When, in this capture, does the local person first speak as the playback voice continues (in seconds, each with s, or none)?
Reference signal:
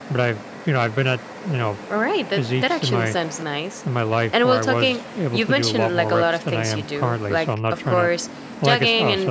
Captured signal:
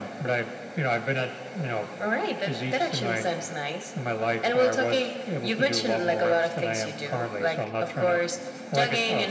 none